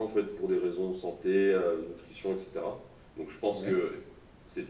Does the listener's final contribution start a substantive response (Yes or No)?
No